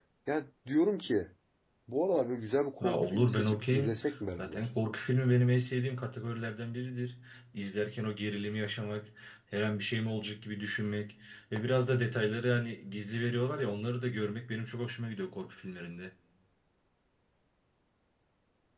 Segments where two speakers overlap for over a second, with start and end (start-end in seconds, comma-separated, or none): 2.8-4.7